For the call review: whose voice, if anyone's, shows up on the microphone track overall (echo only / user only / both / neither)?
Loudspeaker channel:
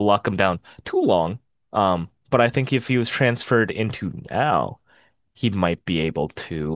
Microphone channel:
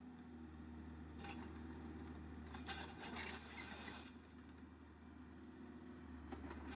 neither